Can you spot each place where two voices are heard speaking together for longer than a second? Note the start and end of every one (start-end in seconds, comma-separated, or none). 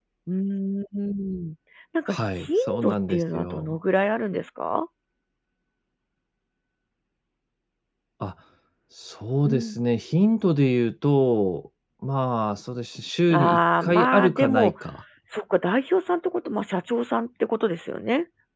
2.1-3.8, 13.3-14.7